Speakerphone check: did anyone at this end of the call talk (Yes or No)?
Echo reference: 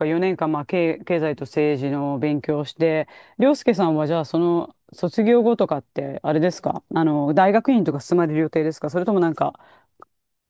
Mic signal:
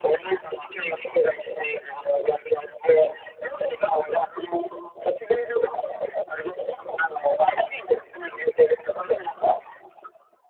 No